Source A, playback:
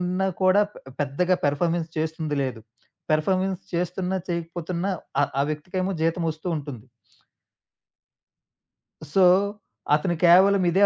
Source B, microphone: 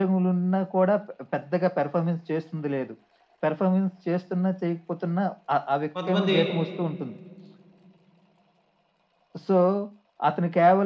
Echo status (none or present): present